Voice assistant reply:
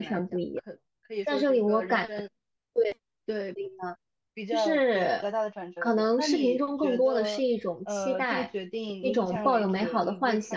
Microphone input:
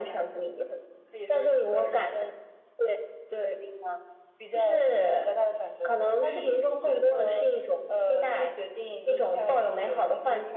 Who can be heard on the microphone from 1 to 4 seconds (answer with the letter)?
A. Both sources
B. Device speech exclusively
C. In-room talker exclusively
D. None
B